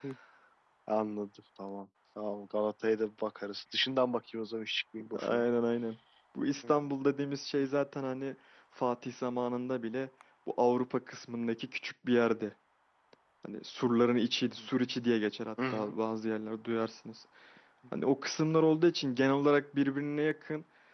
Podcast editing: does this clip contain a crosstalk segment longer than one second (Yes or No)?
No